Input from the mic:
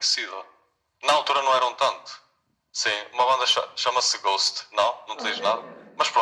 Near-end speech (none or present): present